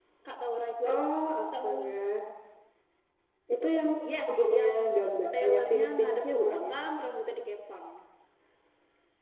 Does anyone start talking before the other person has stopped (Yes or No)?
Yes